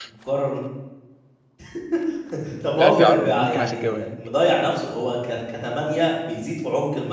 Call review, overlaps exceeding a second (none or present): present